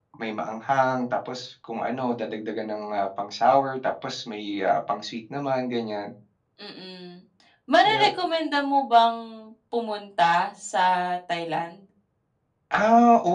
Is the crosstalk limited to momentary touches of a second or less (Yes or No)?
Yes